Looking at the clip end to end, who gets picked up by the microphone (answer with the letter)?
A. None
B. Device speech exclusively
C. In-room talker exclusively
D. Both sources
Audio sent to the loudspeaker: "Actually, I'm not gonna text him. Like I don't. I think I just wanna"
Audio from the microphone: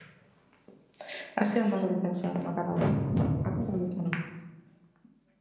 B